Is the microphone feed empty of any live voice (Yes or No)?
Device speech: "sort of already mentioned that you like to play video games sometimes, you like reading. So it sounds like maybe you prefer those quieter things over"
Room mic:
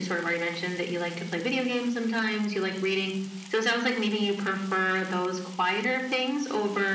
Yes